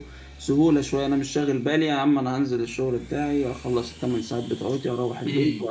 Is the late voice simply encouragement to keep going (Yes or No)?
No